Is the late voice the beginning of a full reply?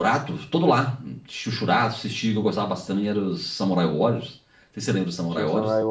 Yes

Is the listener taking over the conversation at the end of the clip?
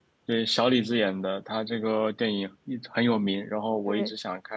No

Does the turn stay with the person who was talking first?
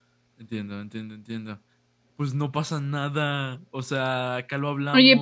No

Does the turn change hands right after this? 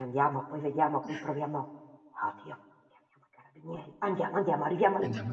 Yes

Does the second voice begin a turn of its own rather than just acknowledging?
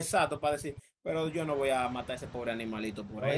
Yes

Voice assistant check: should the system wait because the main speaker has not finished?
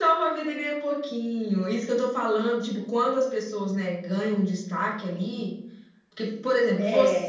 Yes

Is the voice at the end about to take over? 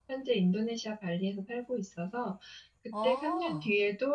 No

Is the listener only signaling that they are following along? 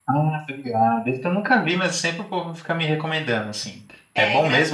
No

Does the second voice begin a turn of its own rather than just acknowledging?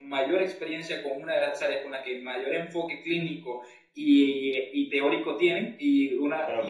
No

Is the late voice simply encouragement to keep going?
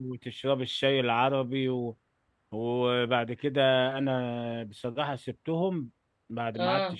Yes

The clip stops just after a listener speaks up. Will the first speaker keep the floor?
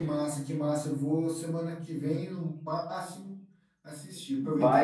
Yes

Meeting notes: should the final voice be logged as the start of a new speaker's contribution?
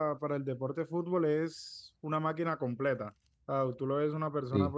No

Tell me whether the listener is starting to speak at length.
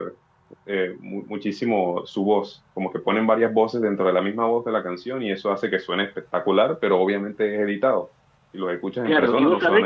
Yes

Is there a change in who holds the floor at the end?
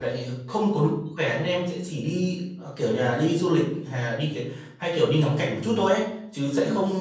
No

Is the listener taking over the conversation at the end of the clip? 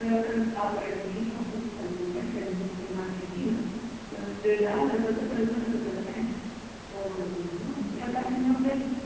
Yes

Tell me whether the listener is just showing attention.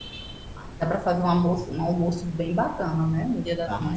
No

